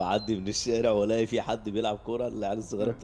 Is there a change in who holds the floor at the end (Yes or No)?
No